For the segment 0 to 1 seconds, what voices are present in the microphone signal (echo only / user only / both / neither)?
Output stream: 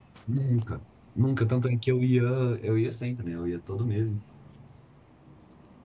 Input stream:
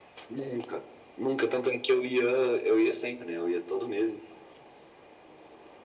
echo only